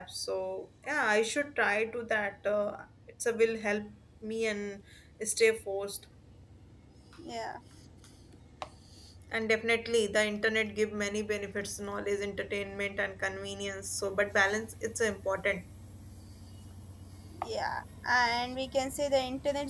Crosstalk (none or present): none